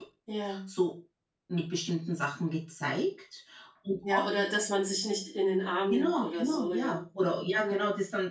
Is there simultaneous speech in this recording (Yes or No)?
Yes